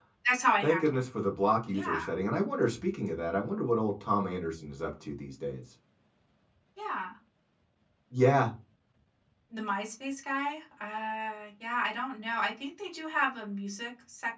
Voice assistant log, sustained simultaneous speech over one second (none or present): none